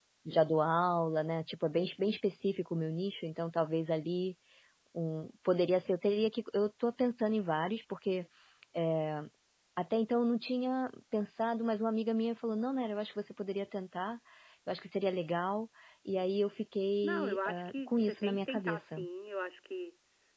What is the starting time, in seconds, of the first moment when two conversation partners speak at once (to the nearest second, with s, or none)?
17 s